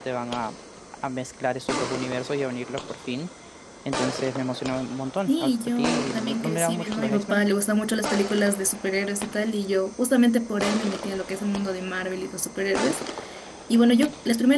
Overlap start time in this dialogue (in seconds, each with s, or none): 5.3 s